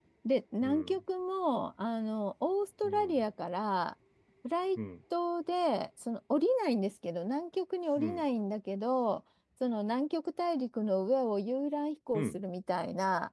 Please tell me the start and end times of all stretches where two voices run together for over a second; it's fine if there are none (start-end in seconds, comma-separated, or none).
none